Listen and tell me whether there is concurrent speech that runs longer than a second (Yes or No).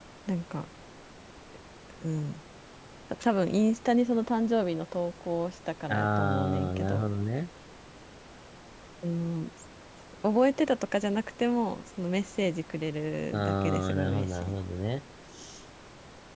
Yes